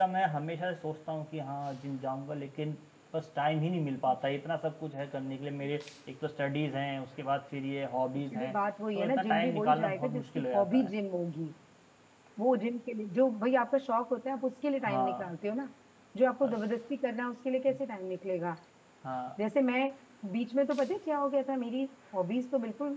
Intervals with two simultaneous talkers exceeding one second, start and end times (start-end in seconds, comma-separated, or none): 9.0-10.9